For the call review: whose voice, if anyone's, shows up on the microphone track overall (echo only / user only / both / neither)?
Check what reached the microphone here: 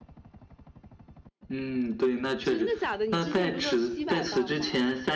both